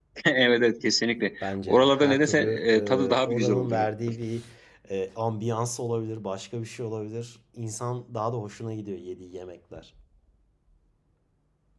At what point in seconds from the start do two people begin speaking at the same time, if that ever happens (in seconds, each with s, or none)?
1.4 s